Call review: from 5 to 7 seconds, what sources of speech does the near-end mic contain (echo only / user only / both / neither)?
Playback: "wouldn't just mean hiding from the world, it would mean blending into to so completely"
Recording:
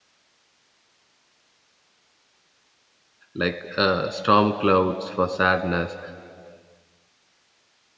user only